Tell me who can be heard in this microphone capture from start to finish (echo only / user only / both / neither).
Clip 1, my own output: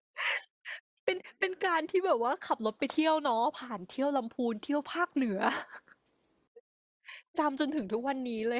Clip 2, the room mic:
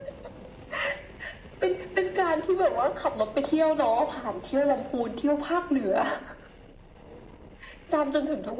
echo only